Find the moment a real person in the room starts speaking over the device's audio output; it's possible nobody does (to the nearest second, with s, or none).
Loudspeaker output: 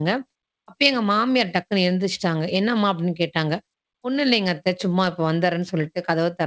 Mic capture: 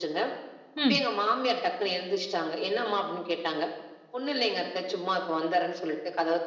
1 s